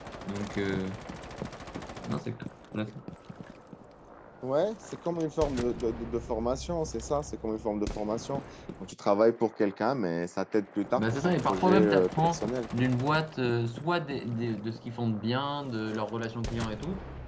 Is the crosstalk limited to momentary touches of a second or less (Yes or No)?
No